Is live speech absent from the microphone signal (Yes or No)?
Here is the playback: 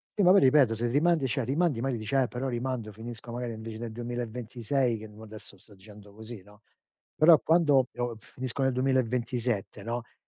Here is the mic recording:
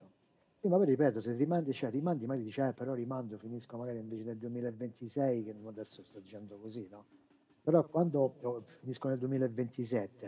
Yes